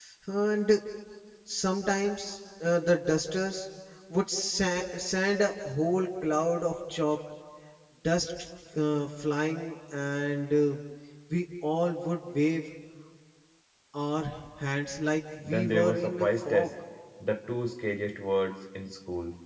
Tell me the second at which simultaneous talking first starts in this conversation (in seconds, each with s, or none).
15.4 s